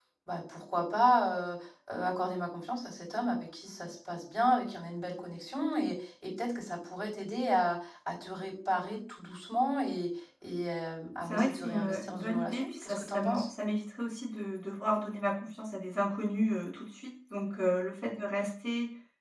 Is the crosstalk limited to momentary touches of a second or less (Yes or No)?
No